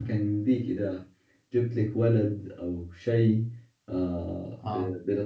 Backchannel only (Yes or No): Yes